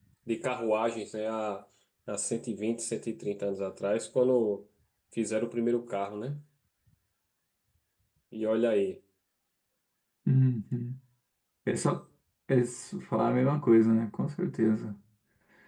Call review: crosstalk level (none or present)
none